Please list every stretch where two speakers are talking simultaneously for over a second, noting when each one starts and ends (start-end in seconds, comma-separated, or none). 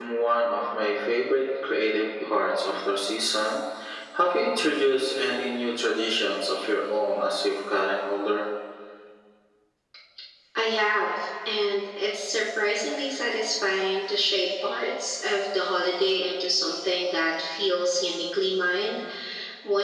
none